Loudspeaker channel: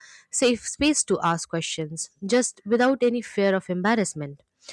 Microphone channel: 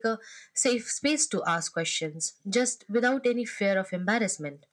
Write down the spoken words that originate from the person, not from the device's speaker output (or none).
none